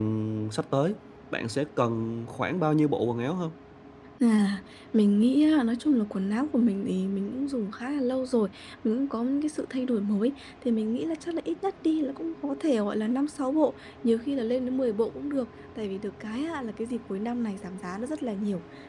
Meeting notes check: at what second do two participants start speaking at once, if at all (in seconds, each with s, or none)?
none